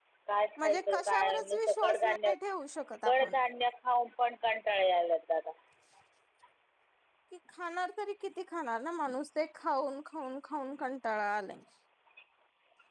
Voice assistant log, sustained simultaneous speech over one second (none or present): present